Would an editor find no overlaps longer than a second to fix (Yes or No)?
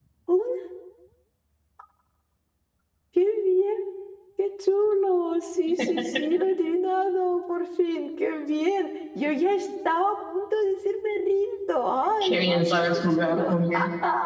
No